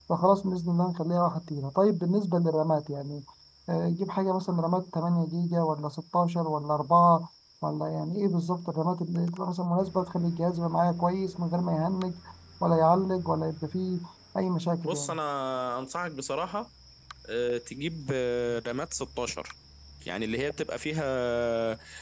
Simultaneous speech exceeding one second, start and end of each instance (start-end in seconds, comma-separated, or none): none